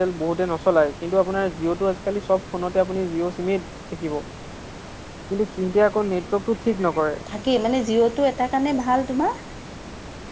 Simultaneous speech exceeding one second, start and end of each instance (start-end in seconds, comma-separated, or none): none